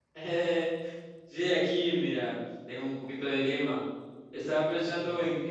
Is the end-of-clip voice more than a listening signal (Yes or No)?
No